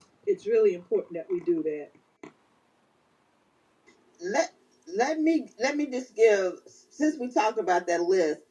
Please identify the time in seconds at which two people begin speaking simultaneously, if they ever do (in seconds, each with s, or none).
none